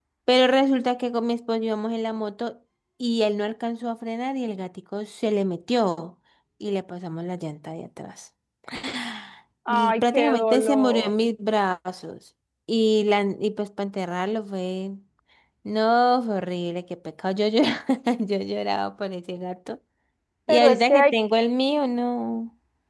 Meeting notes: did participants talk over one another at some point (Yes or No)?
Yes